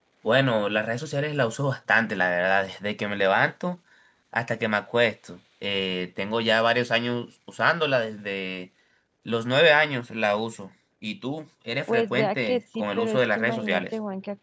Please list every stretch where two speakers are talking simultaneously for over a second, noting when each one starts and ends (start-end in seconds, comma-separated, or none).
11.9-13.8